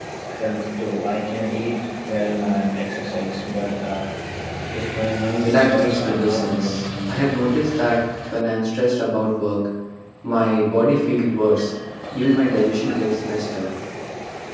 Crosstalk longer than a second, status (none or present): present